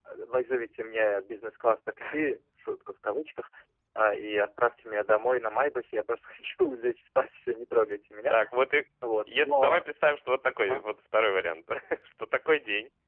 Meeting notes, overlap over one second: none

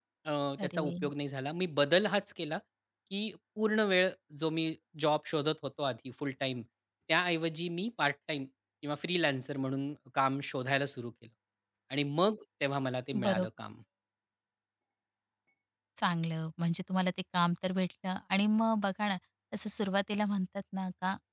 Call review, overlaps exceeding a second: none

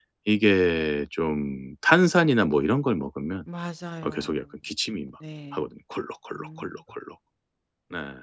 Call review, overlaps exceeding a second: none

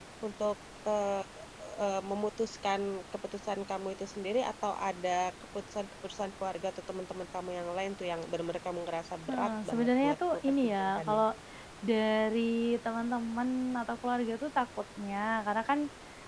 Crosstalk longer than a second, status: present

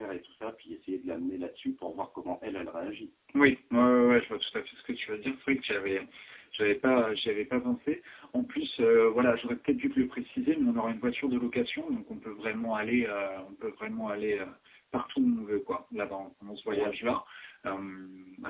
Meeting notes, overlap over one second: none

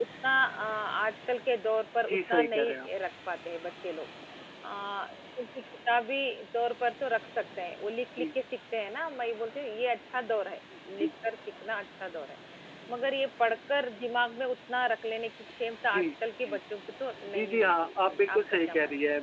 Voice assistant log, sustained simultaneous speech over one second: present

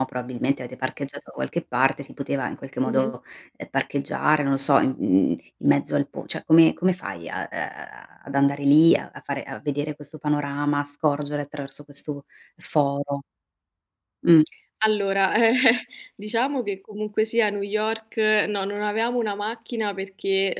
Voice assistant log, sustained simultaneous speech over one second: none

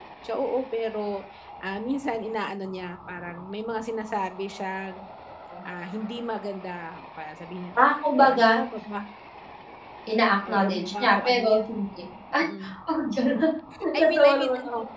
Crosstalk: present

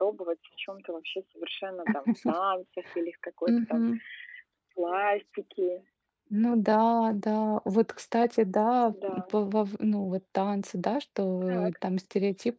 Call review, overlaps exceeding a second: none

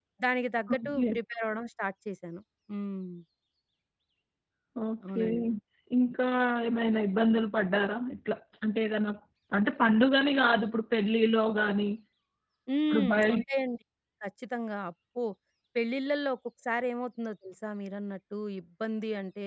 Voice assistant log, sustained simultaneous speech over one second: none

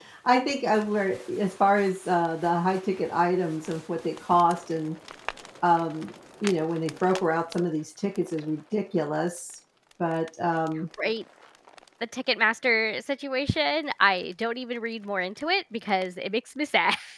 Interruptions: none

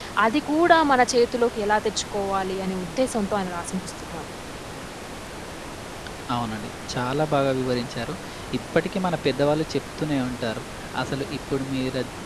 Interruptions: none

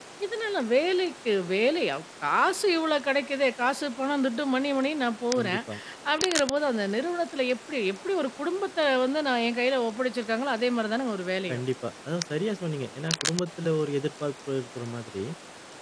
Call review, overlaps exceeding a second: none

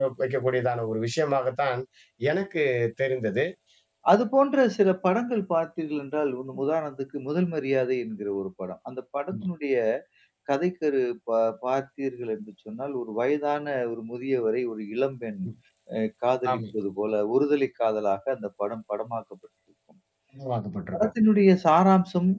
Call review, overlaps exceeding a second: none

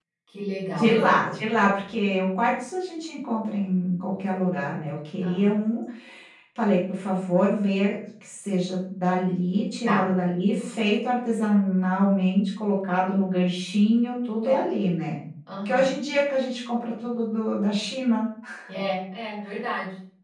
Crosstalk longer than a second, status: none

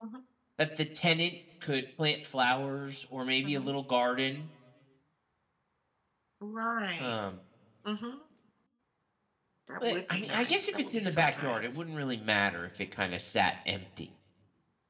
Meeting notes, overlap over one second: present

